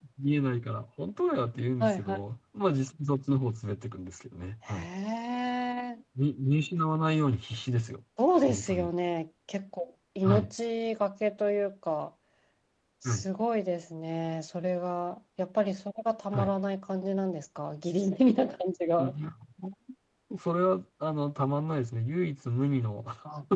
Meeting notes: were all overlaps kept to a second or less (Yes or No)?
Yes